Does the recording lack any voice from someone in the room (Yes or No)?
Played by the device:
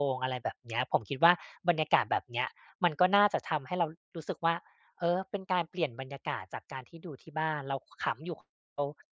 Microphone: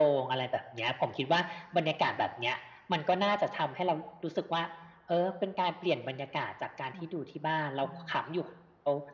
No